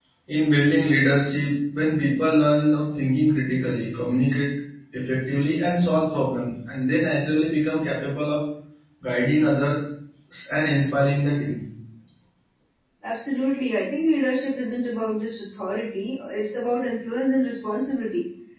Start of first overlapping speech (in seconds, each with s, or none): none